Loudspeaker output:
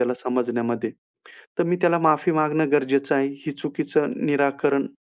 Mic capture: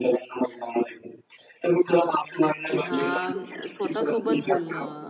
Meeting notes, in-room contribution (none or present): present